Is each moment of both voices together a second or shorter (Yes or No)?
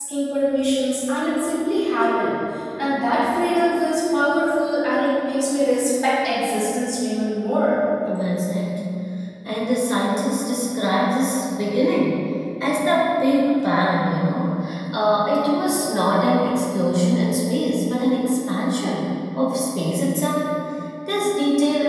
Yes